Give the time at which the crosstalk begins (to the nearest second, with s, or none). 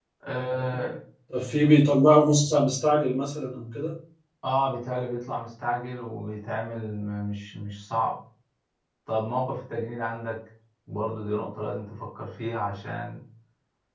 none